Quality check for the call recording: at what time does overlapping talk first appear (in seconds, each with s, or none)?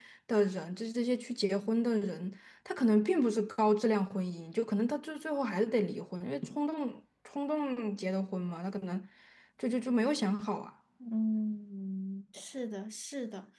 none